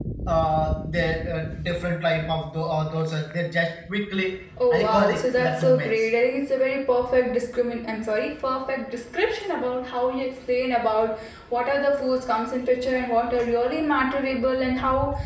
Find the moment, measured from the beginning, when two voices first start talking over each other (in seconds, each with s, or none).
4.6 s